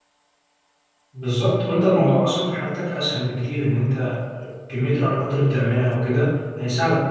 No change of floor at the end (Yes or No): No